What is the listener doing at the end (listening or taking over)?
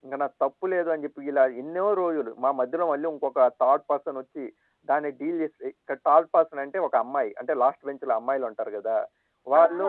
taking over